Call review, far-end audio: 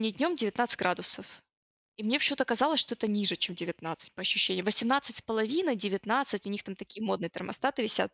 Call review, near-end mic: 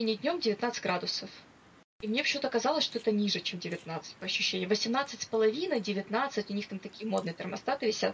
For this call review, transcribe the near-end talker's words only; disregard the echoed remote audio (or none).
none